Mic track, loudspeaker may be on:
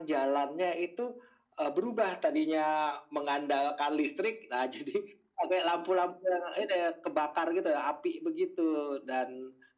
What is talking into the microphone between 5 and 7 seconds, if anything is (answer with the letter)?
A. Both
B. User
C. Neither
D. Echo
D